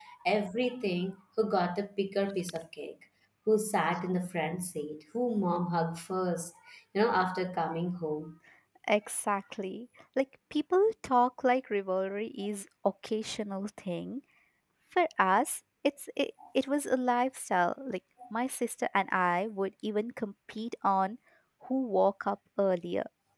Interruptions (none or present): none